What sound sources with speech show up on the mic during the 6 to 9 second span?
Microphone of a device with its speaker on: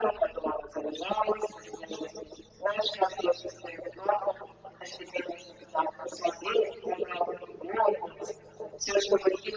echo only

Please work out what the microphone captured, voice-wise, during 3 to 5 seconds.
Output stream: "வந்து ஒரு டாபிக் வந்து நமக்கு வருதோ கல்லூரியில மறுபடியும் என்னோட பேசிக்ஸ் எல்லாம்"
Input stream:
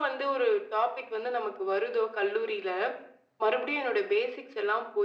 echo only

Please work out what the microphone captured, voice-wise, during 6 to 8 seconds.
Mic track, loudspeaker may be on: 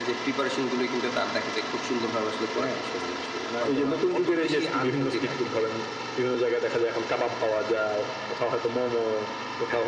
echo only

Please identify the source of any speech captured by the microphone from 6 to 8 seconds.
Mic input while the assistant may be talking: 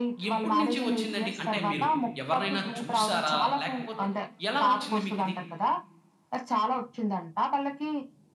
echo only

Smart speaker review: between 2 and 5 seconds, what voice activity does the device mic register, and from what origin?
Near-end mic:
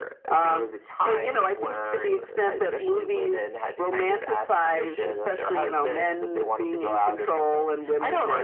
echo only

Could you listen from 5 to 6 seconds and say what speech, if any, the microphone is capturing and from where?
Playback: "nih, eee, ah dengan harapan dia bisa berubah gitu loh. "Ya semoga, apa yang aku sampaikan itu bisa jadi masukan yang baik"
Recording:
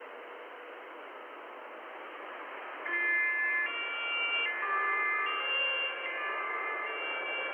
neither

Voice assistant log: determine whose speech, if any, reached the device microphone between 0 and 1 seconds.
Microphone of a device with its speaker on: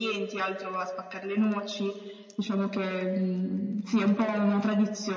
echo only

